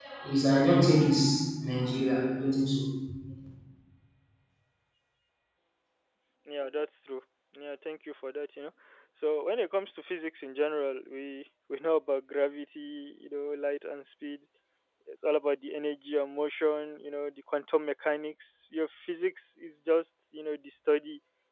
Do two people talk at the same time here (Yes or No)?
No